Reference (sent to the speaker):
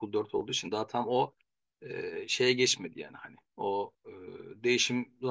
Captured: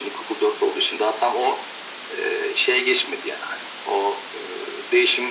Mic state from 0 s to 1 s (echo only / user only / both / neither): echo only